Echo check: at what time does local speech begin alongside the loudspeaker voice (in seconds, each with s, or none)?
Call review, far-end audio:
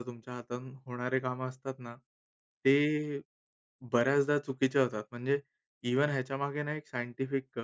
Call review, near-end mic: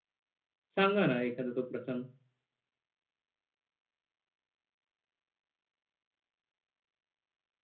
0.8 s